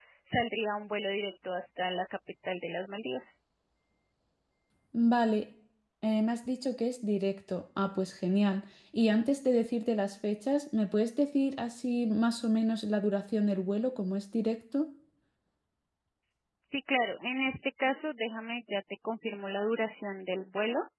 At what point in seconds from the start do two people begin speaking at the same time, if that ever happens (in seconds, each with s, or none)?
none